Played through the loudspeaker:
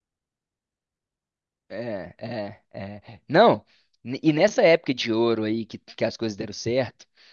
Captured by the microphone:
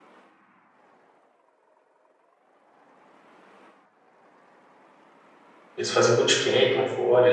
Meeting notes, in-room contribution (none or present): present